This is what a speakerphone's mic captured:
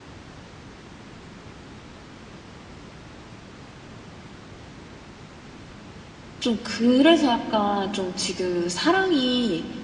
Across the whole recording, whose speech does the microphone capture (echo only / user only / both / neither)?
user only